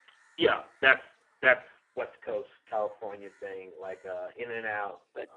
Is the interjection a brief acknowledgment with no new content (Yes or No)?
Yes